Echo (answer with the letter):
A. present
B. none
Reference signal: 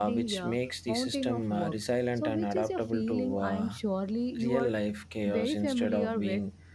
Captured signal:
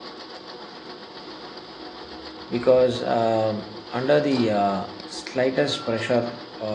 B